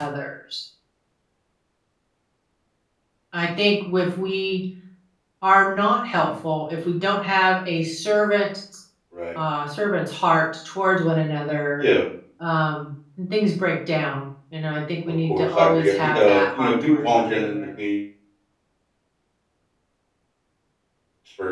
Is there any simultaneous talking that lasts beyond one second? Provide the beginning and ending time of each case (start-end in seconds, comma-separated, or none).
15.3-17.6